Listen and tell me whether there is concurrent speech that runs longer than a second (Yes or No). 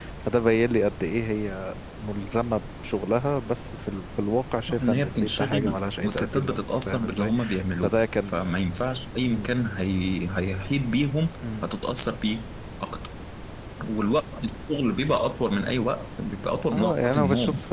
Yes